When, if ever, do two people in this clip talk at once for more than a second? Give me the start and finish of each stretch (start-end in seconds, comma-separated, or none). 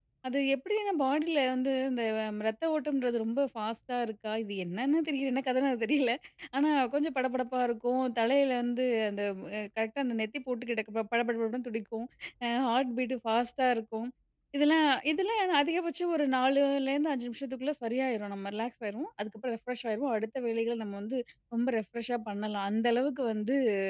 none